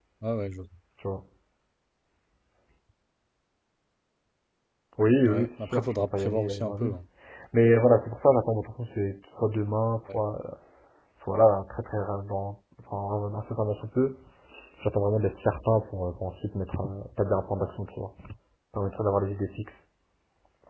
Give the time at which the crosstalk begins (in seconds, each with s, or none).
5.3 s